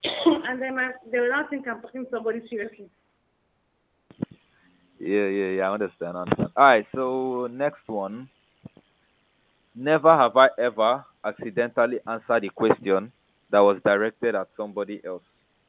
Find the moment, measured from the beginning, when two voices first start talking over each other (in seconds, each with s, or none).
none